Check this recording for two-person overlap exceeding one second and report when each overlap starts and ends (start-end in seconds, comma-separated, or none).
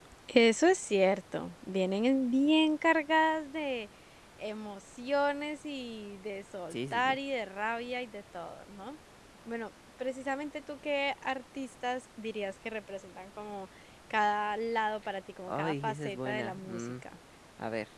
15.5-16.9